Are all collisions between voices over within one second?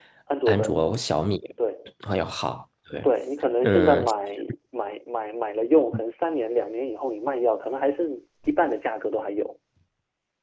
Yes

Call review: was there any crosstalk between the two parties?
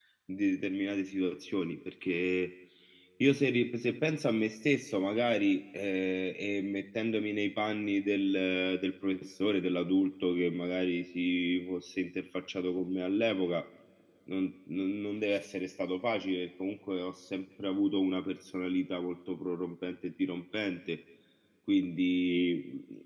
No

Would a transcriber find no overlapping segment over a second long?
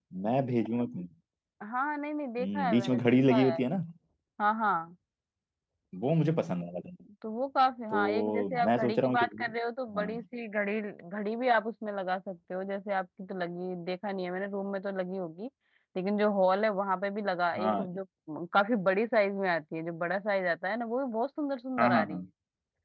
No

